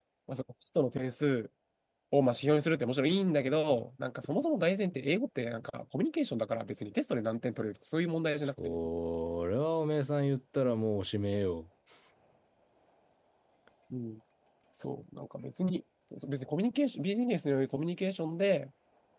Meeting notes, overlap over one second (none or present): none